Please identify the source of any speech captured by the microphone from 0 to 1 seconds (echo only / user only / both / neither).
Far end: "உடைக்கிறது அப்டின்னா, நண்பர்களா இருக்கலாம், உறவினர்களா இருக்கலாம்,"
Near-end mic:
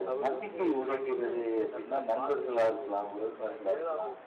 both